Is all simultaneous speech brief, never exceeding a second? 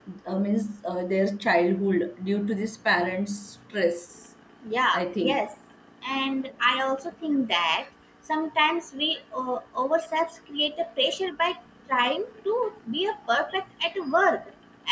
Yes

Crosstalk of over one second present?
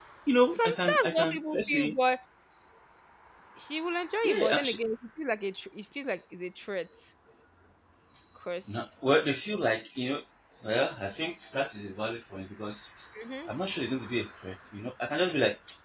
Yes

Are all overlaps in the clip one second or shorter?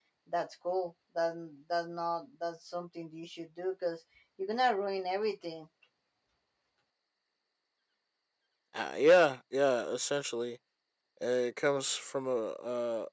Yes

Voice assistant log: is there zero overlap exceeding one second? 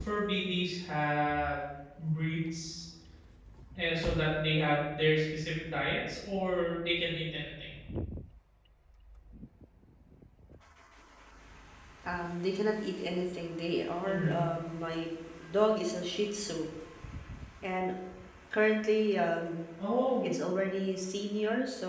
Yes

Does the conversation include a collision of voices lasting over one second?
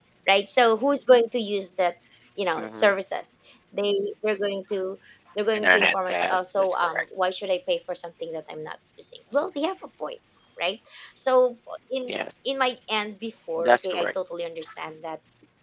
Yes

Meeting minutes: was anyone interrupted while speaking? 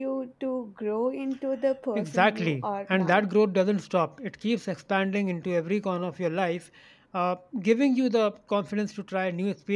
Yes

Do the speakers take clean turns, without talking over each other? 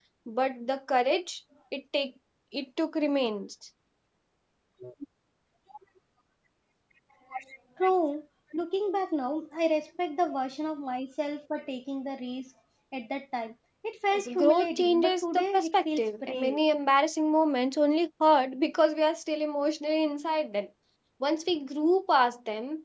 No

